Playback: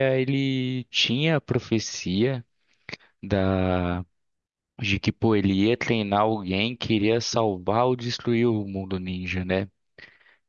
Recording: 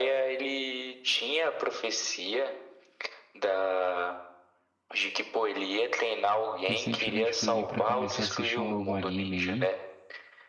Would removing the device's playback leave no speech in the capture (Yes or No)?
No